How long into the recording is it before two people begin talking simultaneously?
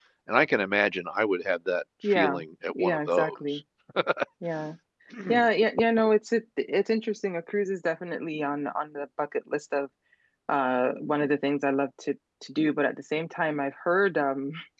2.0 s

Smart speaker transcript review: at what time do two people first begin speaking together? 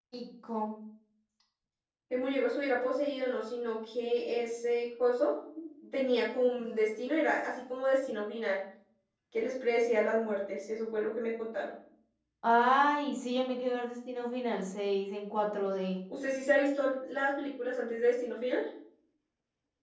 none

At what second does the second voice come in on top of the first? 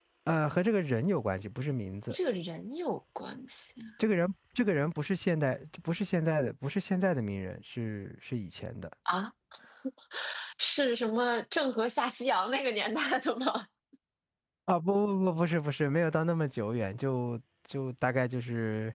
none

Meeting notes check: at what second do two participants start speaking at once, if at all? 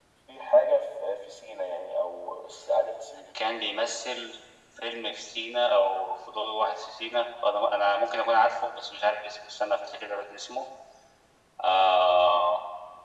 none

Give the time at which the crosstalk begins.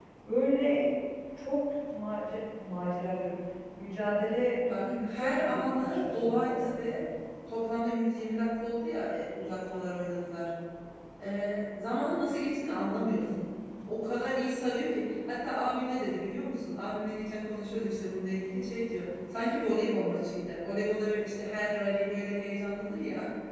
4.7 s

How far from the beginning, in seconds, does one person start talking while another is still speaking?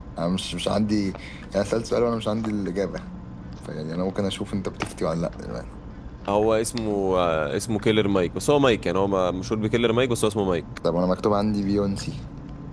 none

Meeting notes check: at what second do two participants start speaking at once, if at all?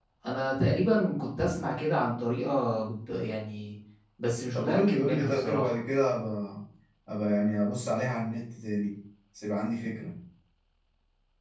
4.5 s

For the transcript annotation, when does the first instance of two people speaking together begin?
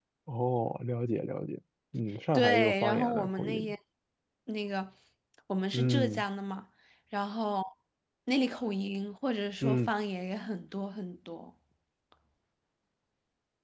2.3 s

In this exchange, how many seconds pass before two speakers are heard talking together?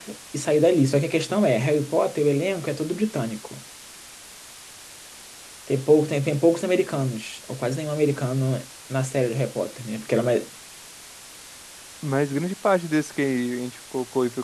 none

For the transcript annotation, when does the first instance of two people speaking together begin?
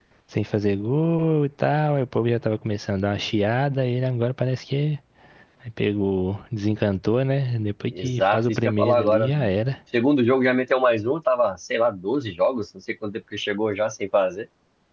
8.0 s

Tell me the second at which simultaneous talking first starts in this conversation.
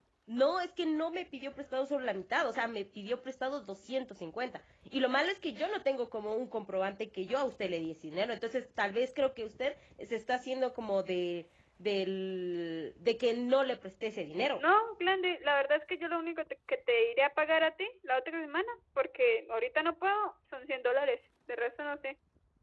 none

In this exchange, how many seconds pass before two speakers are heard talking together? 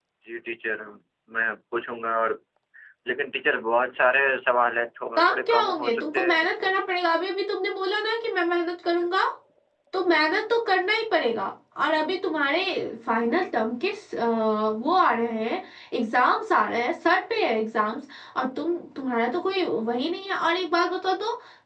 5.2 s

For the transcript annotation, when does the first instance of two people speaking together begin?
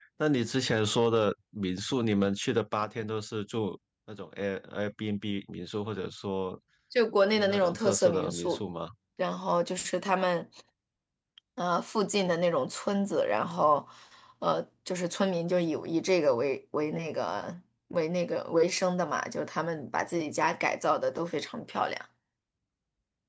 7.2 s

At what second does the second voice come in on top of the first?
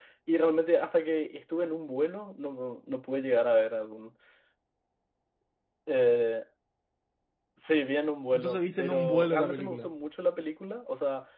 8.3 s

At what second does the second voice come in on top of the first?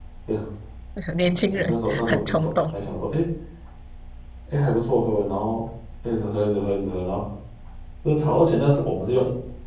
1.2 s

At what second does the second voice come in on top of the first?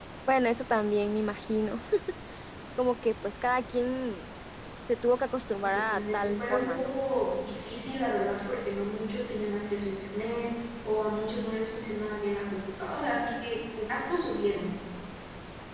5.6 s

